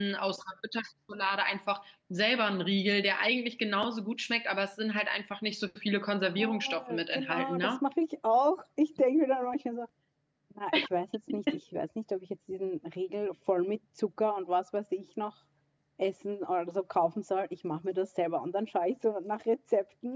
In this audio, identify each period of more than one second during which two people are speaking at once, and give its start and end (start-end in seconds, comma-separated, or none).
6.4-7.8